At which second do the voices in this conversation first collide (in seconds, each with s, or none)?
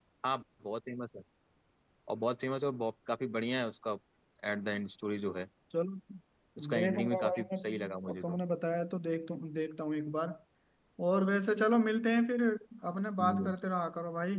6.7 s